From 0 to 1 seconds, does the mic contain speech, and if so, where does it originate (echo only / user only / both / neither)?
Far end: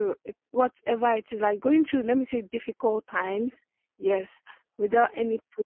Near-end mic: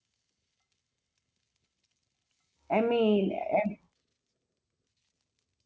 neither